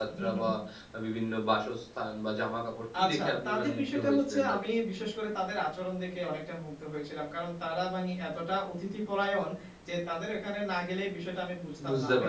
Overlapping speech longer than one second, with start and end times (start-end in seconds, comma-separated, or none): 3.0-4.6